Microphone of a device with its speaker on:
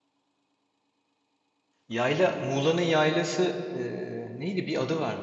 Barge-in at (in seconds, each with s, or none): 1.9 s